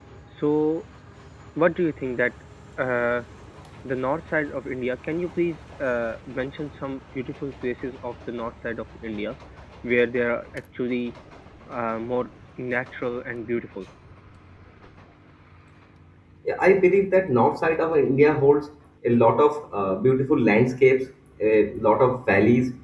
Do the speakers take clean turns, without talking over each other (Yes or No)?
Yes